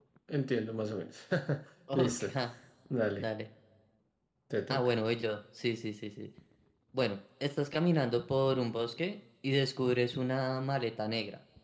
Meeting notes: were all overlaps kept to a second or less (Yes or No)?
Yes